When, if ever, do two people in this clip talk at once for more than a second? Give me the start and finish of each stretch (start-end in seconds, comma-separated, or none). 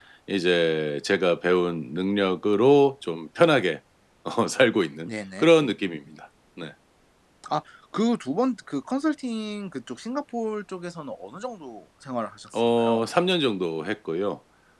none